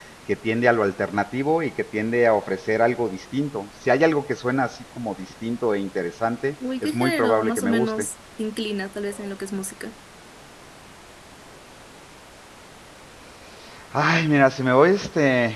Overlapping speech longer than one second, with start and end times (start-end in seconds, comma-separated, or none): 6.8-8.1